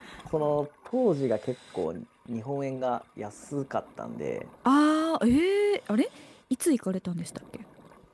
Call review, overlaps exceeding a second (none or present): none